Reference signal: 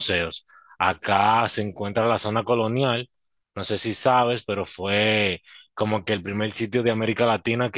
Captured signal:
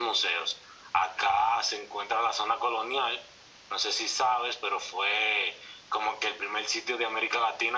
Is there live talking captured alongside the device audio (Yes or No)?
No